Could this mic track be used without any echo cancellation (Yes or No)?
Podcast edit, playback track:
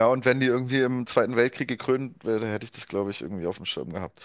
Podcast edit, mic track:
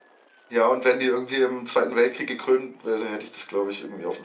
No